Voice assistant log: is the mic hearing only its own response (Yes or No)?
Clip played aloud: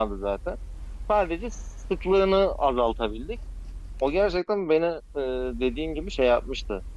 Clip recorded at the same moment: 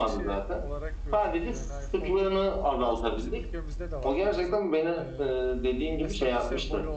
No